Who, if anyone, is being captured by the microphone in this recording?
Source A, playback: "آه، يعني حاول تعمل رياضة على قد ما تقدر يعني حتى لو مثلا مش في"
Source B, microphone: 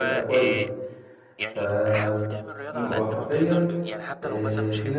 both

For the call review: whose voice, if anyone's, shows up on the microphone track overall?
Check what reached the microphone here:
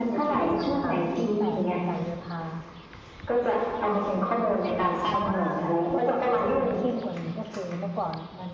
both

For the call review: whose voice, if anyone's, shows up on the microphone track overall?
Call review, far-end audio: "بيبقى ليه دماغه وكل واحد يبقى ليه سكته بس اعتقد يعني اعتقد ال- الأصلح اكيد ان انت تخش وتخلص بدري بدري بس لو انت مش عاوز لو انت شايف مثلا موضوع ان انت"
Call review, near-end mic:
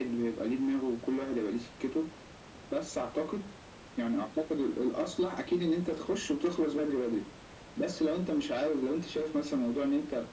echo only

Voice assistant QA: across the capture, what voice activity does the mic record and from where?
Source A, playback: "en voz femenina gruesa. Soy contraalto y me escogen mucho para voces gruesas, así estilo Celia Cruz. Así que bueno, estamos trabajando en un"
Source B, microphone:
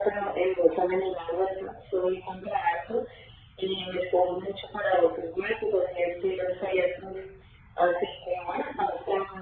echo only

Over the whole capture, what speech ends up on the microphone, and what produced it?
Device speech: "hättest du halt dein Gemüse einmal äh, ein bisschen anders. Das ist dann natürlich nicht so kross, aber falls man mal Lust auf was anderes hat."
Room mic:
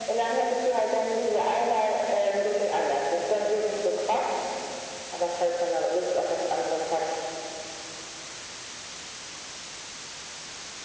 echo only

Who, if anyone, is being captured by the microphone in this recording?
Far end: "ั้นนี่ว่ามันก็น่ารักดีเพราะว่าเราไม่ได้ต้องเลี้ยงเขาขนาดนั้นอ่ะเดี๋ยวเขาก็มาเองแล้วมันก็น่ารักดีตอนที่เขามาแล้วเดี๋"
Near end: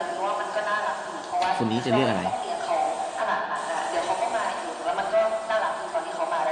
both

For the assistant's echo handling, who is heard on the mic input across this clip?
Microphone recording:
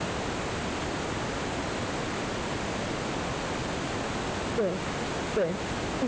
user only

